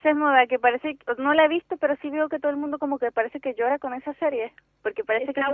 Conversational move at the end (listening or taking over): taking over